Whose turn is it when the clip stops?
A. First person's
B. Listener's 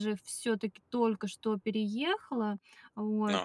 A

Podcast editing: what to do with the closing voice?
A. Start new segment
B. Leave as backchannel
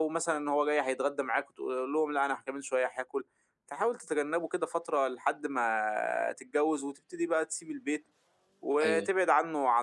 B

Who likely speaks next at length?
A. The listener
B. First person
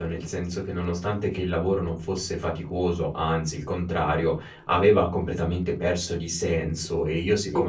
B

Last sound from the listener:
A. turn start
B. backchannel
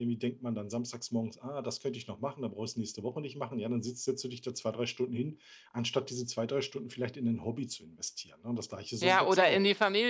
A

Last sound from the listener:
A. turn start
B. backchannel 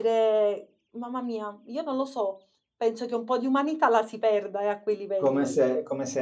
A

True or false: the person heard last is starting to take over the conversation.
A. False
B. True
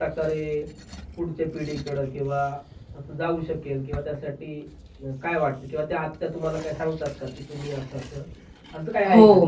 B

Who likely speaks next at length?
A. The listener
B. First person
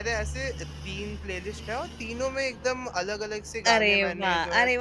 A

